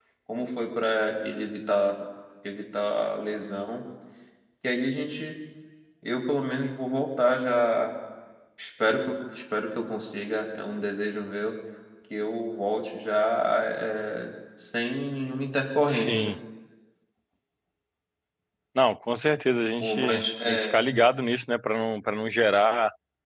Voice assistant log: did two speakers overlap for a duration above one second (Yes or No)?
No